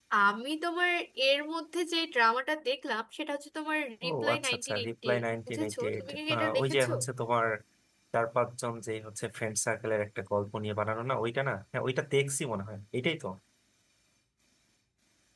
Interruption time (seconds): 4.0 s

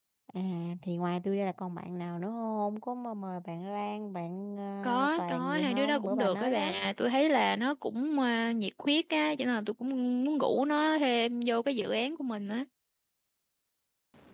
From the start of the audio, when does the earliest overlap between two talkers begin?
4.8 s

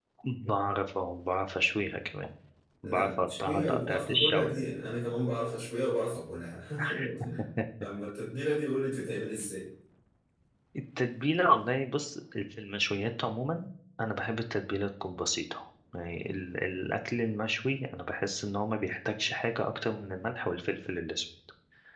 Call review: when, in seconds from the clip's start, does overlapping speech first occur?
2.8 s

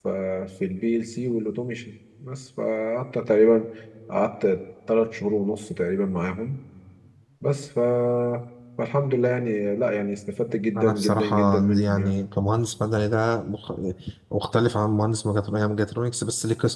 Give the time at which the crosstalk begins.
10.8 s

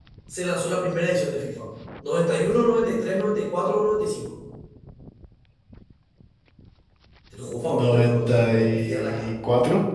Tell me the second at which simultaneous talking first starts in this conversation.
7.7 s

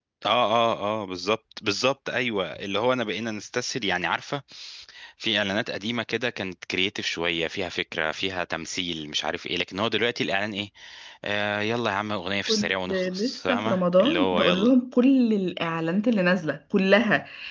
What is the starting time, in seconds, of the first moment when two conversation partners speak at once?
12.5 s

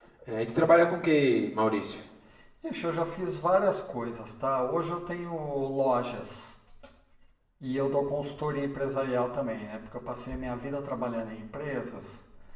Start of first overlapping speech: none

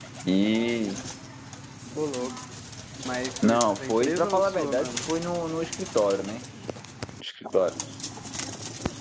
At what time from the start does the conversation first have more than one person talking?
3.4 s

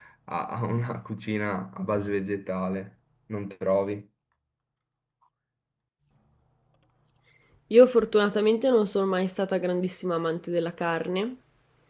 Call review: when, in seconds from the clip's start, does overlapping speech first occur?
none

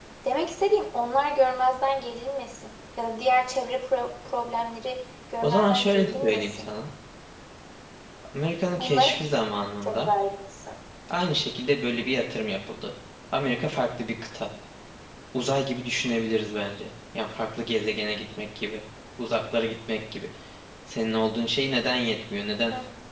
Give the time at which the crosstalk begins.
5.4 s

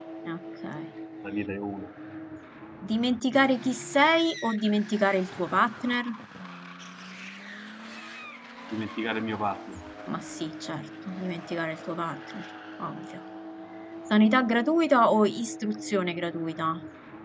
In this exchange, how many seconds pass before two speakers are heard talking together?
none

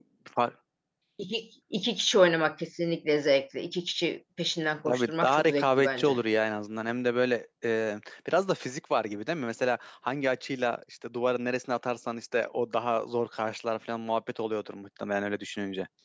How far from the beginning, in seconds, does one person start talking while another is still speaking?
4.9 s

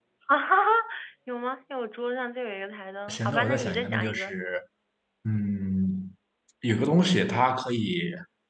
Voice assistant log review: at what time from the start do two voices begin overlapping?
3.1 s

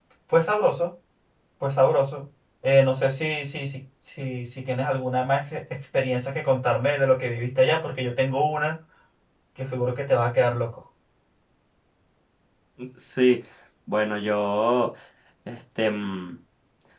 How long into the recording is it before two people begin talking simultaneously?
none

